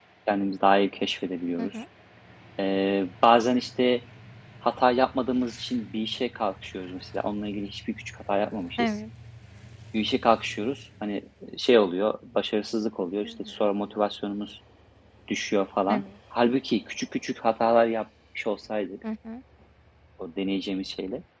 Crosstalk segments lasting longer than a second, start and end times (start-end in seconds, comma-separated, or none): none